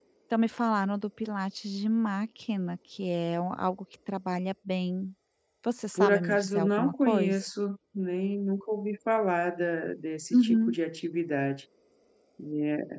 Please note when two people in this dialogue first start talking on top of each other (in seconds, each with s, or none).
6.0 s